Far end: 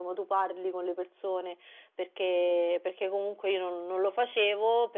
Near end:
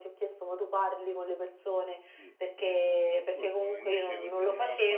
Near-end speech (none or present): present